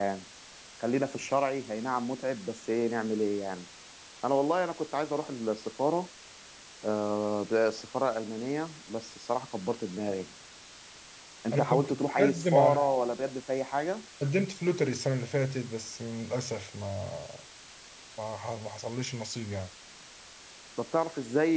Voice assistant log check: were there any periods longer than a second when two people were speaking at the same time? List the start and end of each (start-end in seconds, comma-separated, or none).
11.5-12.9